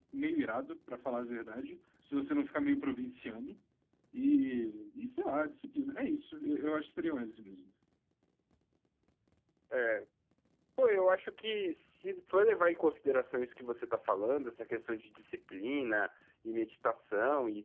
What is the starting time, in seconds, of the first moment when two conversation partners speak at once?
none

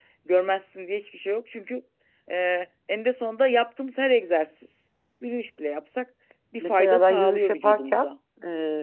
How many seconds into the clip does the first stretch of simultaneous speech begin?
6.6 s

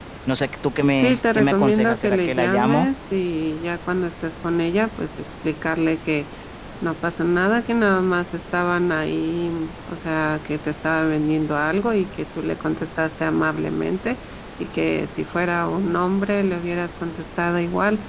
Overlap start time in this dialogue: 1.0 s

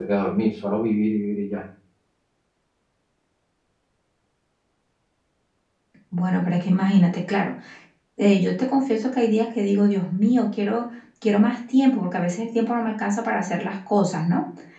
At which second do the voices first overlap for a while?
none

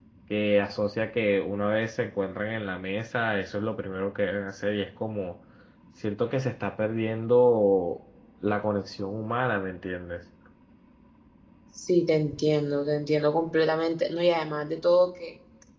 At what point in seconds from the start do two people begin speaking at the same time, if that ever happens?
none

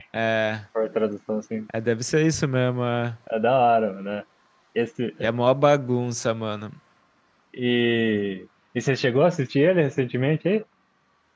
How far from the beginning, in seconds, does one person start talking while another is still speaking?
none

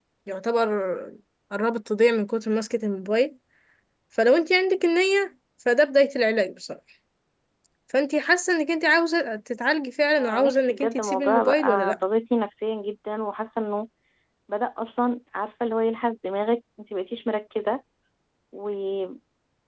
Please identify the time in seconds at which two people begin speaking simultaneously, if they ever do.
10.2 s

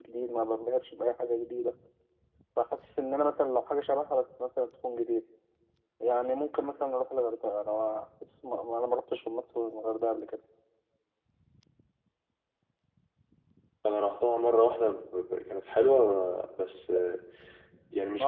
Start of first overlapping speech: none

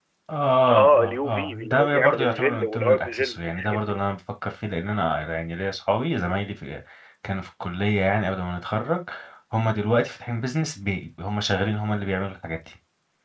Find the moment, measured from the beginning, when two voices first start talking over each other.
0.7 s

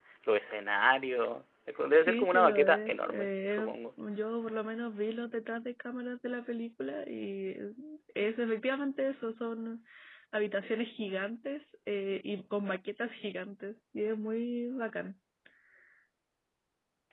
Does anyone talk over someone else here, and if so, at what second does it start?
2.0 s

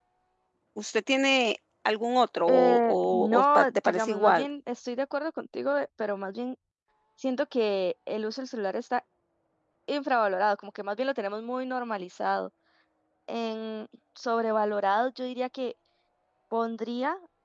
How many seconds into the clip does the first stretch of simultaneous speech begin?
2.5 s

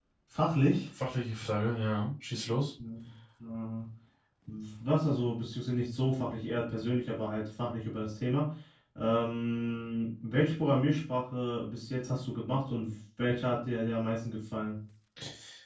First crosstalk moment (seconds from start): none

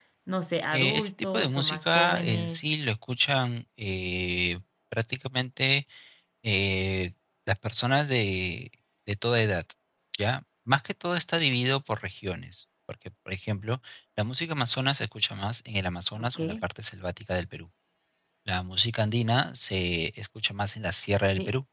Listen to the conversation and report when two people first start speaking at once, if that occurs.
0.7 s

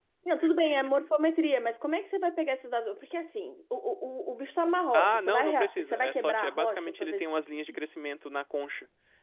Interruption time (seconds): 4.9 s

